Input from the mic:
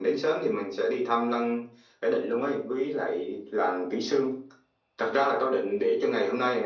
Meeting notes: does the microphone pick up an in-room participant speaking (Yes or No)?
No